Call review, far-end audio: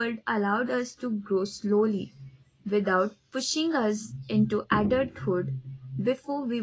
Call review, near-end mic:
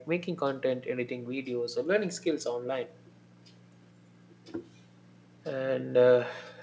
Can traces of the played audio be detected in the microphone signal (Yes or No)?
No